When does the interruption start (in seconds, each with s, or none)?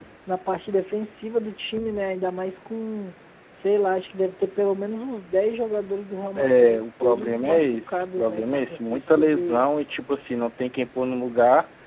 6.3 s